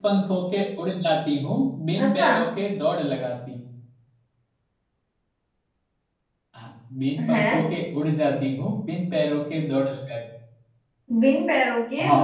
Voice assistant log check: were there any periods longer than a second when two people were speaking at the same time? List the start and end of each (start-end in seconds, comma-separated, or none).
none